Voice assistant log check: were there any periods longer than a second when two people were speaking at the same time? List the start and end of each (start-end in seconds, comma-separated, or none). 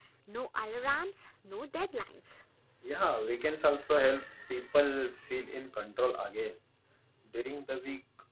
none